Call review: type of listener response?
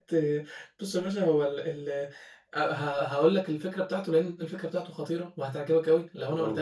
listening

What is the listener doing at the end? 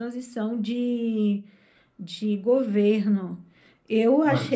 listening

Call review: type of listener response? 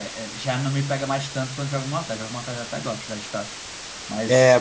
taking over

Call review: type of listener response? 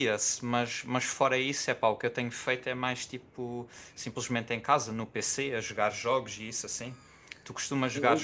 listening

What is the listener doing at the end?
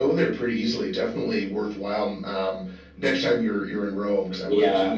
taking over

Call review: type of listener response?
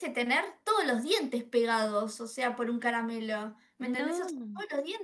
listening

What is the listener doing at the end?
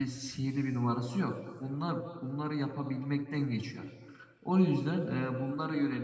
listening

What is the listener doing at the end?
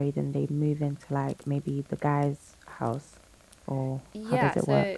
taking over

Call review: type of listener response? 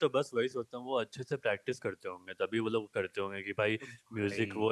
listening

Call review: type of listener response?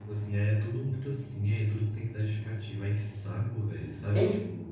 taking over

